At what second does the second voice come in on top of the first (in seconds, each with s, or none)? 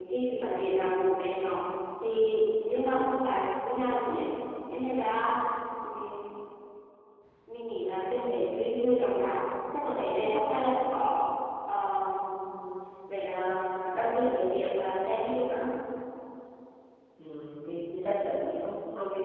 none